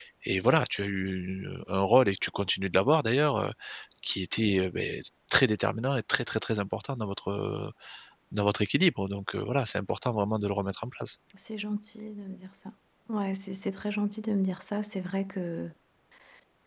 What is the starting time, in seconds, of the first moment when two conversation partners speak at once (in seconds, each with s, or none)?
none